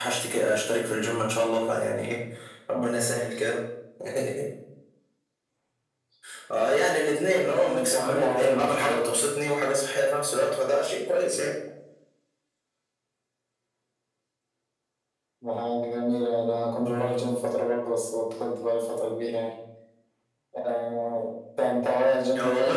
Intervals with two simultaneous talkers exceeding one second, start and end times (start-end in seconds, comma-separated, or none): 7.7-9.2